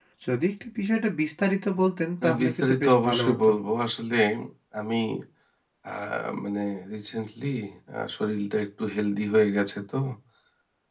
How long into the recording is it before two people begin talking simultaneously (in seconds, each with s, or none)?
2.2 s